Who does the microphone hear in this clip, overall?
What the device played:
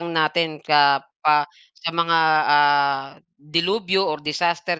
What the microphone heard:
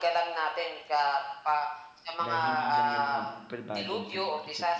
both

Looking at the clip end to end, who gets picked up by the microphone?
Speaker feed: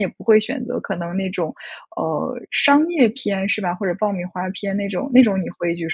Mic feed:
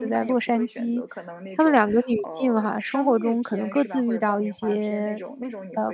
both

